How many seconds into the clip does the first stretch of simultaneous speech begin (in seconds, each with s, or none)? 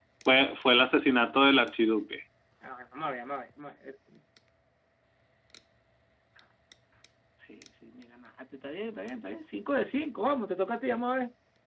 none